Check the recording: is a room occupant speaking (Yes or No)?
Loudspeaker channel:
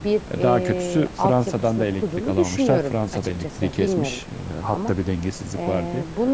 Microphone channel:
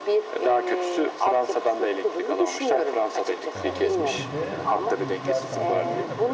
Yes